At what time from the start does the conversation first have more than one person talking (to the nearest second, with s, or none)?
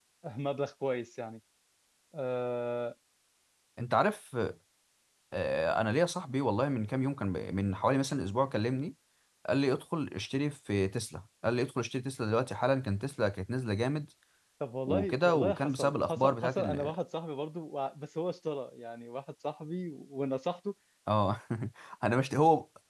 15 s